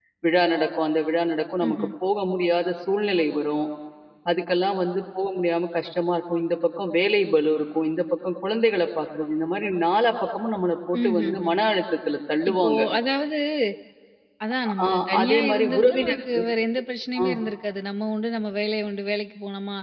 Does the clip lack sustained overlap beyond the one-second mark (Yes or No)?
No